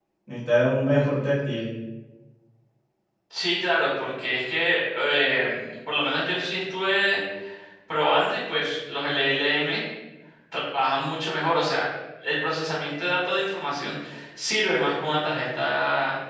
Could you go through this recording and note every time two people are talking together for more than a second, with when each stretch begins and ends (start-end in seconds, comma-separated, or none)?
none